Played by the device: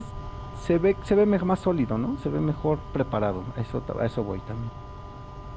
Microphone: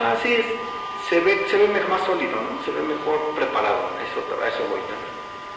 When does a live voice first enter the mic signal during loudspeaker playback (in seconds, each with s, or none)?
none